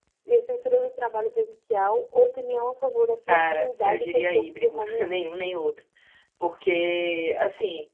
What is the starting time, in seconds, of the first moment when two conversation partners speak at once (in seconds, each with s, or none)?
3.3 s